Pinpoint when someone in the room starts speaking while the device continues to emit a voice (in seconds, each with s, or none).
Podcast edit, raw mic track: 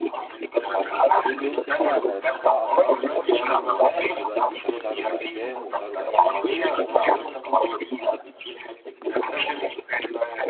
0.9 s